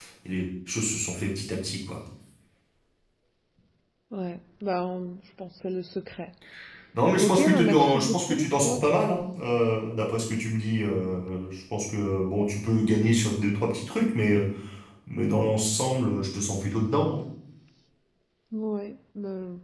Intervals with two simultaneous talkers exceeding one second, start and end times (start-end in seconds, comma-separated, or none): 7.2-8.8